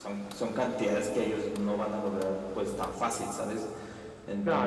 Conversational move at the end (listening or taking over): listening